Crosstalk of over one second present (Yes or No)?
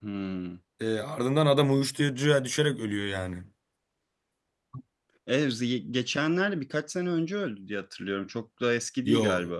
No